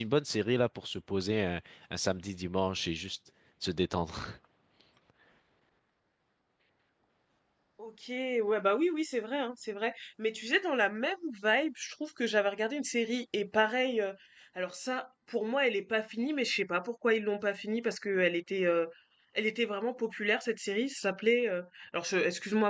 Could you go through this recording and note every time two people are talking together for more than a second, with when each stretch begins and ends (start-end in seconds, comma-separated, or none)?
none